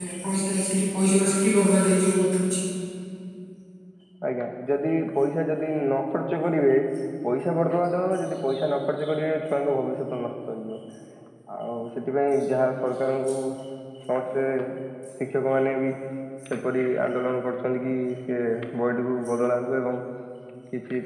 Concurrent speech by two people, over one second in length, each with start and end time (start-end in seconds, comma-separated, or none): none